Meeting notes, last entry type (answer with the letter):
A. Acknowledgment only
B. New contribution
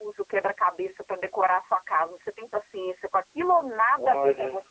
B